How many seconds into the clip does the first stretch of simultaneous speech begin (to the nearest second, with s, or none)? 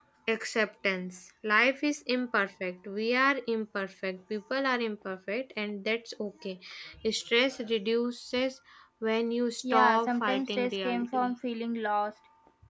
10 s